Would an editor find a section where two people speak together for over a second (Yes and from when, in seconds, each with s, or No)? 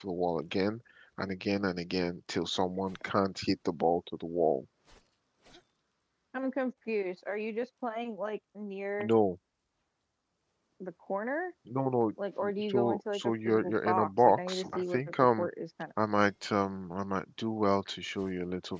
Yes, from 12.7 s